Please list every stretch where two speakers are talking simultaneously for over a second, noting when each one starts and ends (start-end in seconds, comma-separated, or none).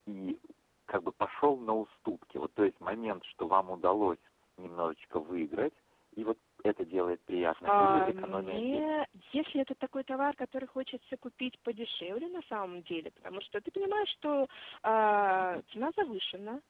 7.7-9.0